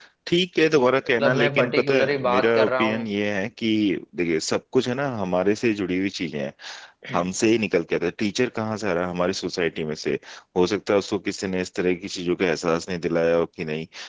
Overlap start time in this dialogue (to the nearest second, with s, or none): 1 s